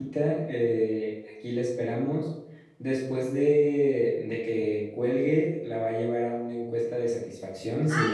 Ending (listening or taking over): taking over